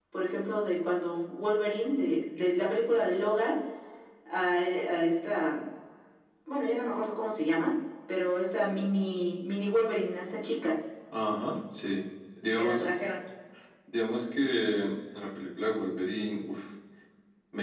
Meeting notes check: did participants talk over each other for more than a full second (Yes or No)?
No